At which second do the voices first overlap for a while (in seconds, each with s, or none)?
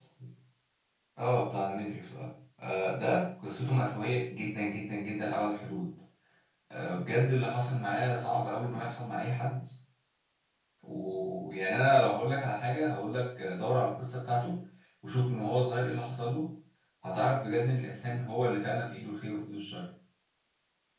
none